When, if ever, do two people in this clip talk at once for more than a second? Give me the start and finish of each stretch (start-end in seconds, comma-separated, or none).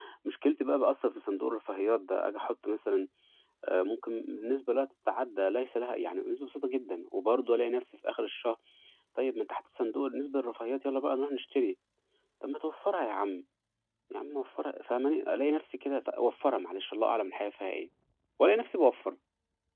none